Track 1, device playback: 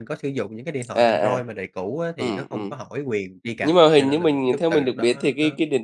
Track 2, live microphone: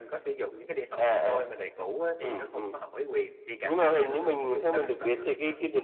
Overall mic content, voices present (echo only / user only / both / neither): echo only